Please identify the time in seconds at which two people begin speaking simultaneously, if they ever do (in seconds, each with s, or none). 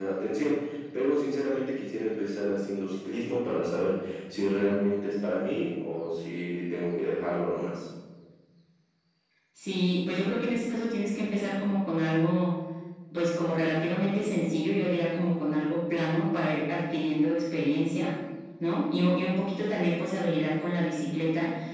none